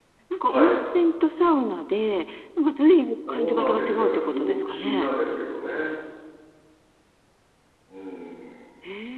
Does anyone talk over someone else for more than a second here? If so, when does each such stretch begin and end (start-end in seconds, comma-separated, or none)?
3.3-5.1